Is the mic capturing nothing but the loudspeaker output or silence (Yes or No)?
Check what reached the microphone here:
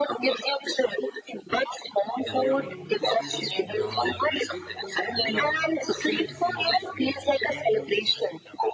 No